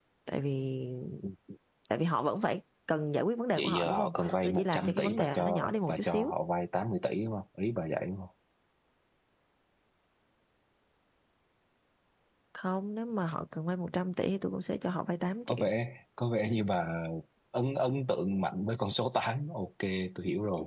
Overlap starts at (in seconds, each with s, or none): 3.6 s